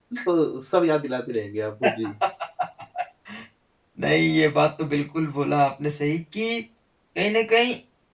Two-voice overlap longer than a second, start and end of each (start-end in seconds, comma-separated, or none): none